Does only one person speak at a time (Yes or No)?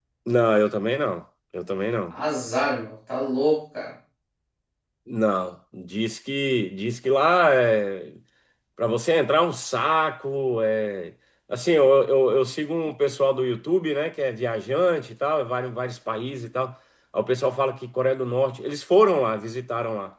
Yes